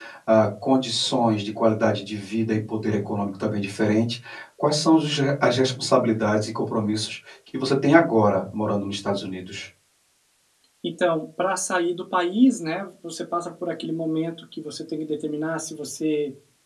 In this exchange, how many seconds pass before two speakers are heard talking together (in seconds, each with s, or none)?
none